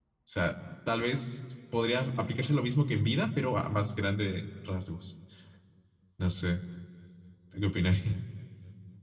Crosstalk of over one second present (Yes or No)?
No